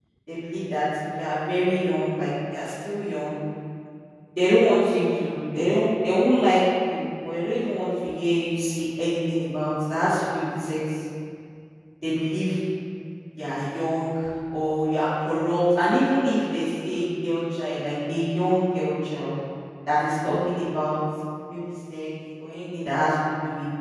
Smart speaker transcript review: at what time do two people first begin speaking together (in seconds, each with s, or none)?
none